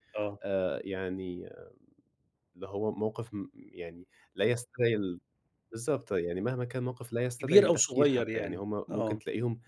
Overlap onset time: 7.4 s

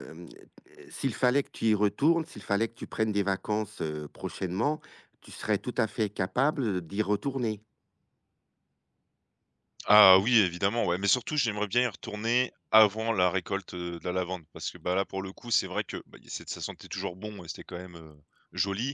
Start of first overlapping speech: none

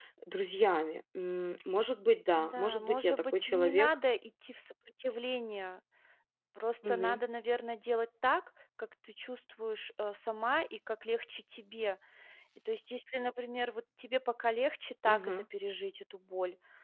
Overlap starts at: 2.4 s

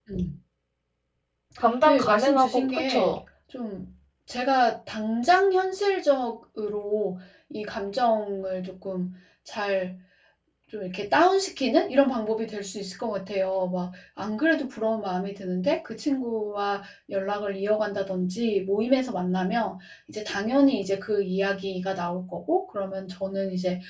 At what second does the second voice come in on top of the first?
1.9 s

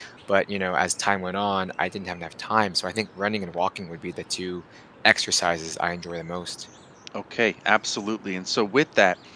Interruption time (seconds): none

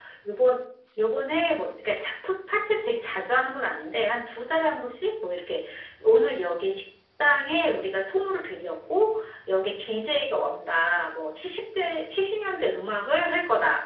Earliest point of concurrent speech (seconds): none

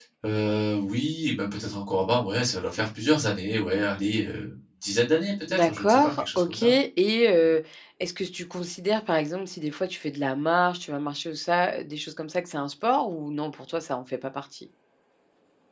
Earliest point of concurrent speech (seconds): 5.5 s

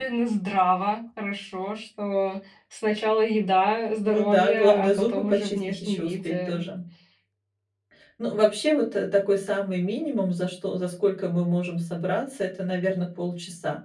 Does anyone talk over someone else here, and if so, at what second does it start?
4.0 s

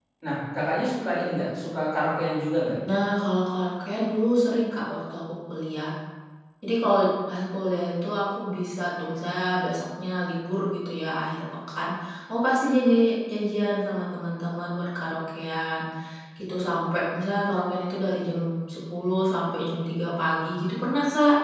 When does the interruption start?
none

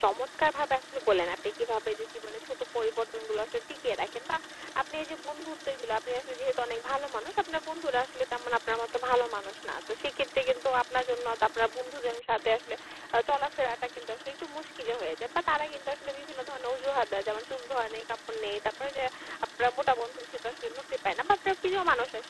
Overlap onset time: none

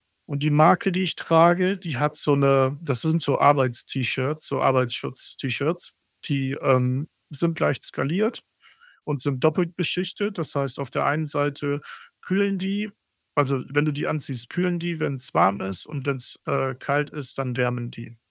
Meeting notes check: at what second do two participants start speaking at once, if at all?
none

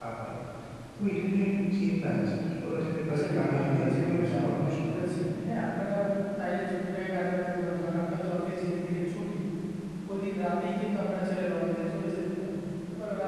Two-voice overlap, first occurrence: 3.1 s

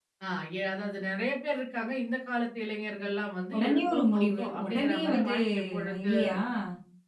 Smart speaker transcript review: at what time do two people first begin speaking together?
3.5 s

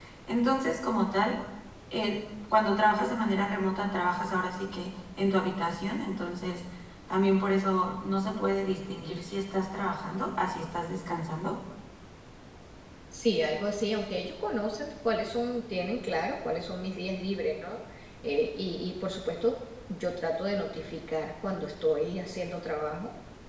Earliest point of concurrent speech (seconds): none

